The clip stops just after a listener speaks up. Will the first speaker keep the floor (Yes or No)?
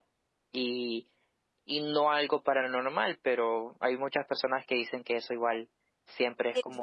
No